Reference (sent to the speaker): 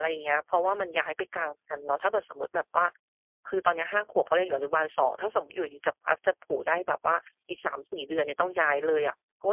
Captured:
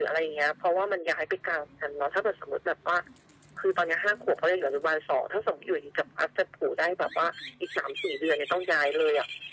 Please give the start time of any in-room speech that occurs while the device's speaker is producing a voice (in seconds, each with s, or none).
none